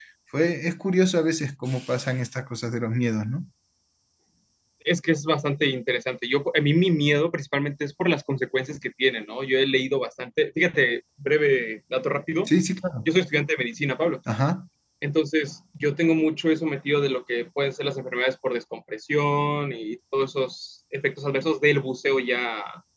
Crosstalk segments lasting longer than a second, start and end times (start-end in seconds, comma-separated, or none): none